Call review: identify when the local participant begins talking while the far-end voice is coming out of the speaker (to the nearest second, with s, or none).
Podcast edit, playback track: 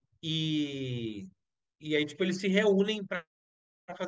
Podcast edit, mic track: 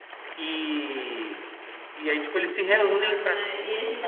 3 s